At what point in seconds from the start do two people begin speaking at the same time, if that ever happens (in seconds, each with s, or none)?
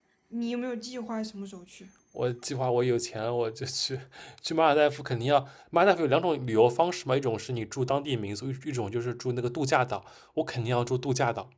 none